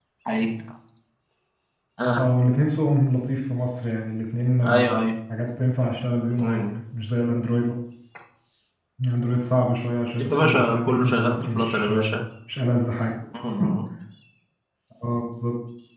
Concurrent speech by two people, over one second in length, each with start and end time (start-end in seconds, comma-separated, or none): 10.2-12.2